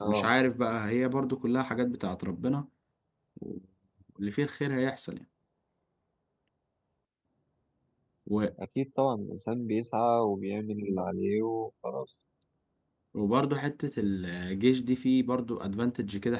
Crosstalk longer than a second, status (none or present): none